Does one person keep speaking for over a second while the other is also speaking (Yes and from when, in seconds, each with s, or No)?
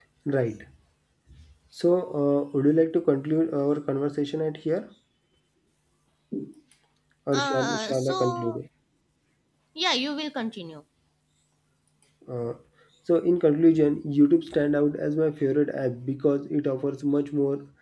Yes, from 7.3 s